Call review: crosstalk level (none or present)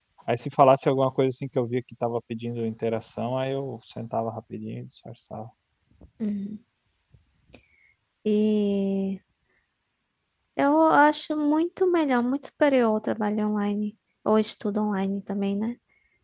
none